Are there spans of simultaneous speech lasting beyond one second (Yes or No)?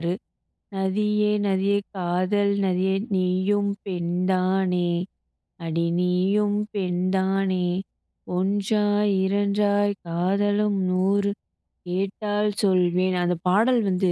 No